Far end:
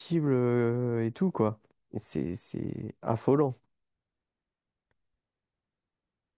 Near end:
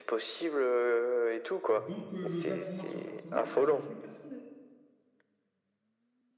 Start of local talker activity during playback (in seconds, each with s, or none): 1.8 s